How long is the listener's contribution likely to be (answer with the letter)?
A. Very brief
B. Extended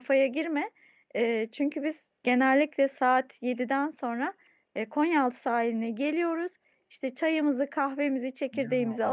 A